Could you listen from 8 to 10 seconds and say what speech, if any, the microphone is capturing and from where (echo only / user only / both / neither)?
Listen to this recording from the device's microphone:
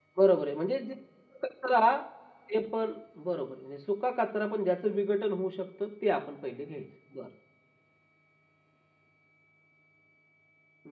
neither